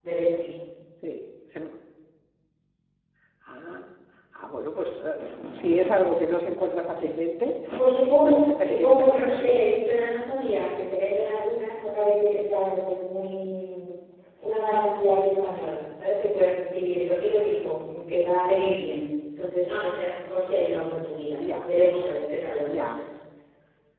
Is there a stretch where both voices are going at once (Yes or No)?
Yes